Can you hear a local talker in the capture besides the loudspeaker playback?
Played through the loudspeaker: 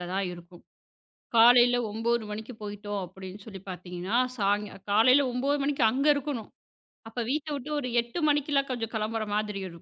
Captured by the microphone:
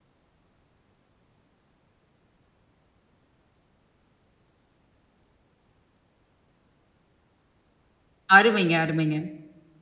Yes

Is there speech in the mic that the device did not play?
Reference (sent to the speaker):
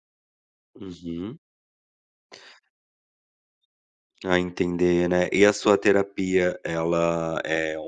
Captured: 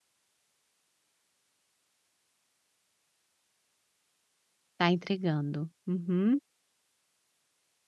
Yes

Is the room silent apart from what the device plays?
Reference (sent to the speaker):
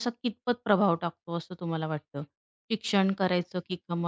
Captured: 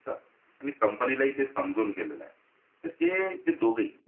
No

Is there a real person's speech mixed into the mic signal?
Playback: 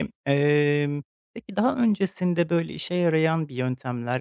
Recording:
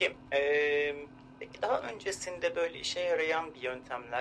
No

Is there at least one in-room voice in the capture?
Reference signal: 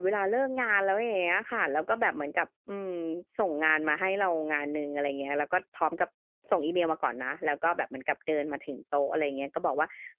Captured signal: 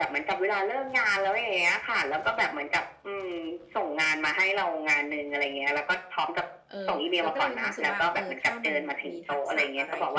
Yes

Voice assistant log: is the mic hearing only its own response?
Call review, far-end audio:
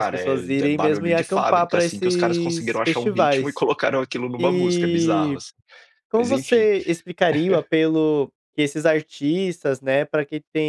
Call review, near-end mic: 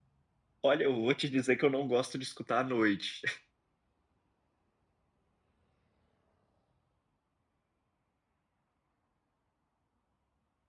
No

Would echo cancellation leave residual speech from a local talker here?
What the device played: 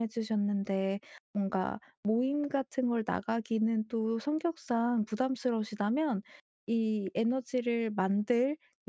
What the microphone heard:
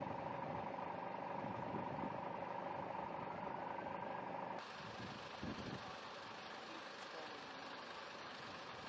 No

